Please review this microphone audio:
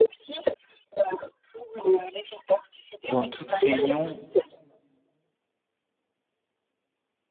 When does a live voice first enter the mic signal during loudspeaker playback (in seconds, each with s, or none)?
3.0 s